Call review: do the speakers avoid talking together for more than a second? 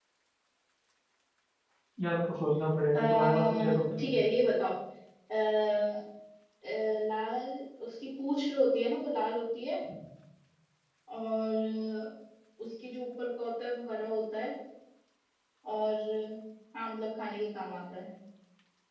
No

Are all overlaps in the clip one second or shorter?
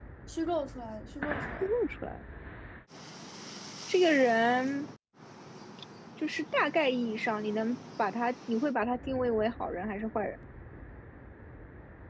Yes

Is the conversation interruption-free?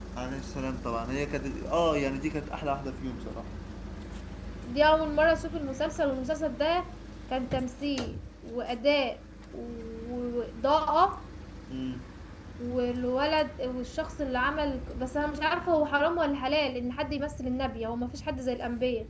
Yes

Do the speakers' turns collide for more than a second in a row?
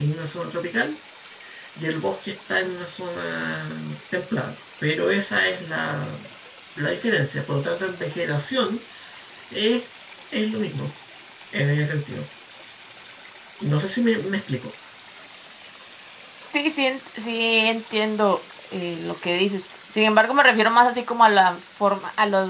No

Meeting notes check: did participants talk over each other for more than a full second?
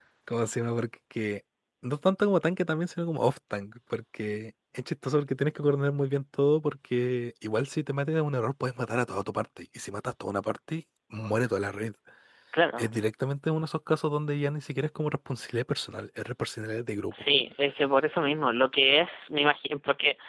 No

